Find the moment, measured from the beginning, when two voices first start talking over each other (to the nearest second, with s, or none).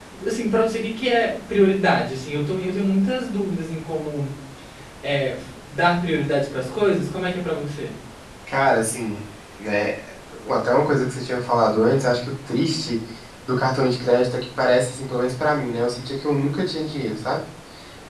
none